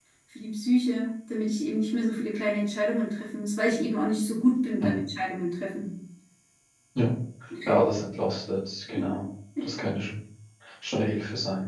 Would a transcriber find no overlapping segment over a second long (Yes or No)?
Yes